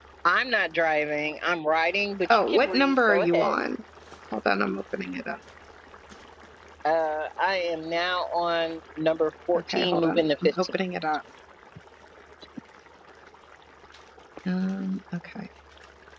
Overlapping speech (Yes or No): Yes